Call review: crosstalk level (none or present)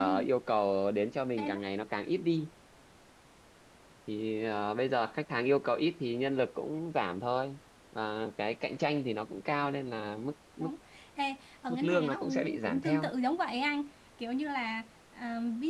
present